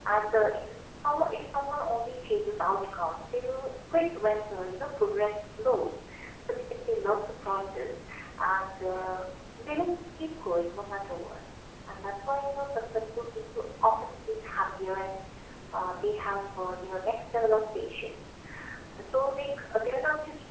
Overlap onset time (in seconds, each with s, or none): none